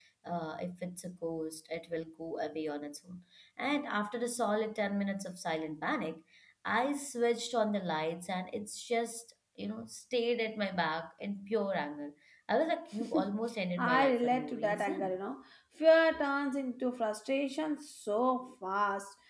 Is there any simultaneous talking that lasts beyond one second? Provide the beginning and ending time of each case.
13.8-15.2

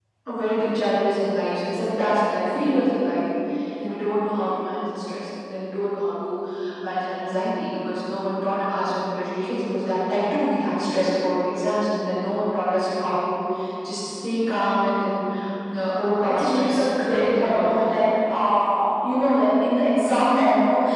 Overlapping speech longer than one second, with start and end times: 16.2-17.8

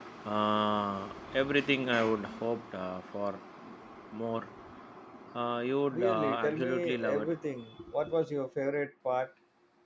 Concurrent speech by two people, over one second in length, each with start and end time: 5.9-7.3

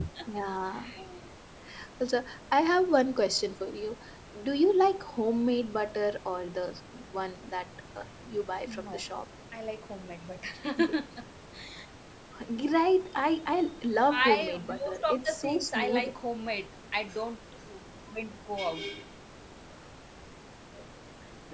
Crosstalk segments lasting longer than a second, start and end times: 14.1-16.1

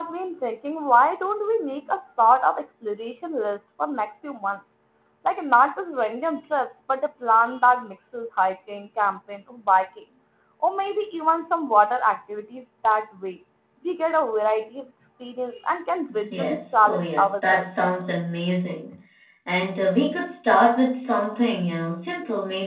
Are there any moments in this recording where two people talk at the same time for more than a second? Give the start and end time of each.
16.3-17.6

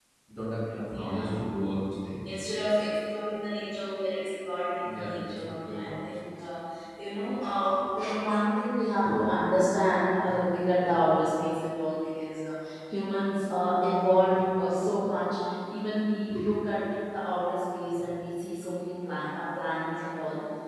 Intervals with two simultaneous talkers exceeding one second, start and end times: 4.8-6.2

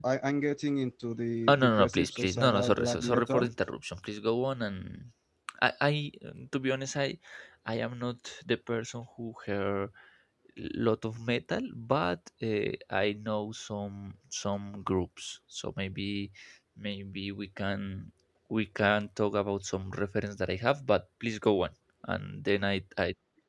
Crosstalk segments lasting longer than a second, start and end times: 1.5-3.5

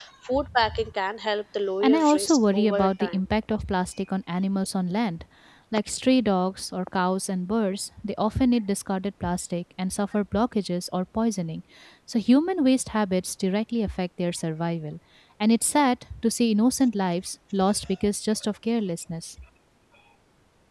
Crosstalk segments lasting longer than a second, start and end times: 1.8-3.2

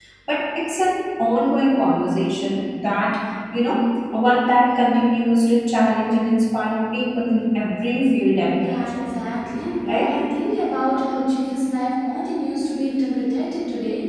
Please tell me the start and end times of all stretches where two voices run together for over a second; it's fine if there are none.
none

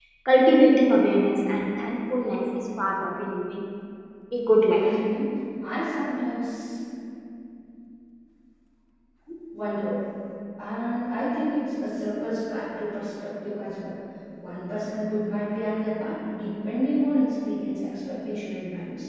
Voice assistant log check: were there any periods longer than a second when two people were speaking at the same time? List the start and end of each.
none

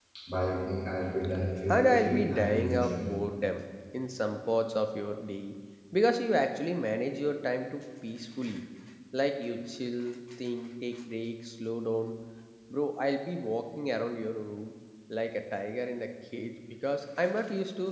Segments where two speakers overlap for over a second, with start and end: 1.7-3.2

